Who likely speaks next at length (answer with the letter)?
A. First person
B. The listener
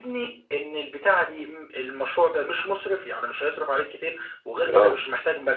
A